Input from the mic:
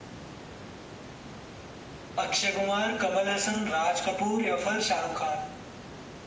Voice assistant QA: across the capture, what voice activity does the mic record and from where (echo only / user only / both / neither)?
echo only